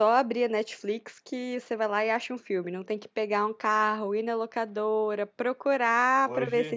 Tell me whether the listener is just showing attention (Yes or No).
Yes